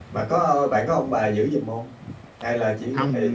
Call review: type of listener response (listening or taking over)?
taking over